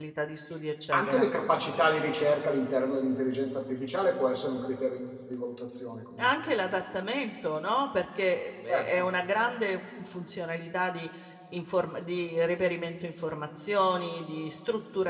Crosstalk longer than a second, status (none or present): none